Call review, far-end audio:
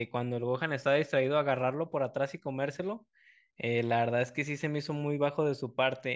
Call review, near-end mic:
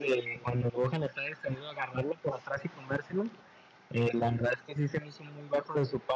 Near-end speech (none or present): none